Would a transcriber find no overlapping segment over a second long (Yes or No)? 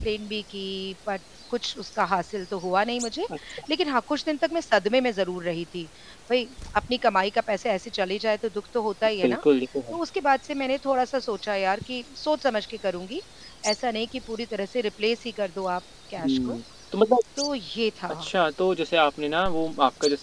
Yes